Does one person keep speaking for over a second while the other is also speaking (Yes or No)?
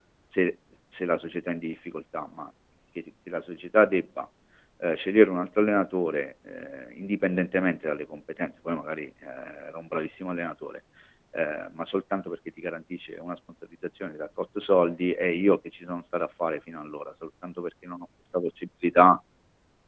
No